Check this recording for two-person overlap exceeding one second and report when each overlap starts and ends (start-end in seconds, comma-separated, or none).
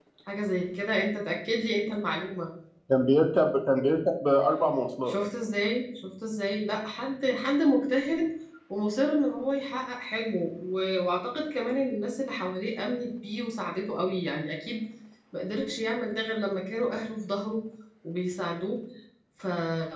none